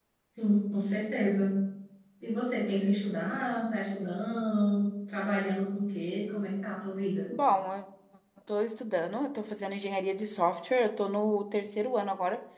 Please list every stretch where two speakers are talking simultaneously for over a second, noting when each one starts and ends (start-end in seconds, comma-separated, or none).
none